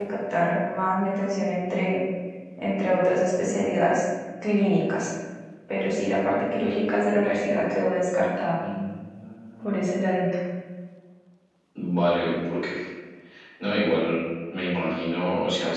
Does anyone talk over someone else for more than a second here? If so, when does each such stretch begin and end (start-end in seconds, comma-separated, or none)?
none